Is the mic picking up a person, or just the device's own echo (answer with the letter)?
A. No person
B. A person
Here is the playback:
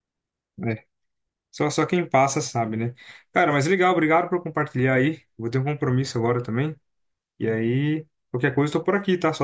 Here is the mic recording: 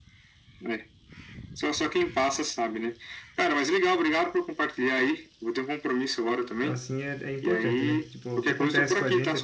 B